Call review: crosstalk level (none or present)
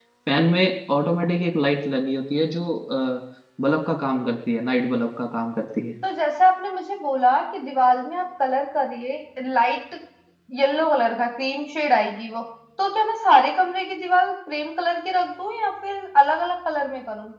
none